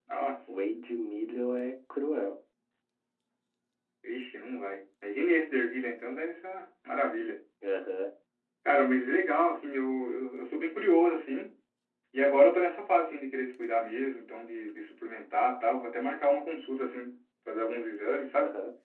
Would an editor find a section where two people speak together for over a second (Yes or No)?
No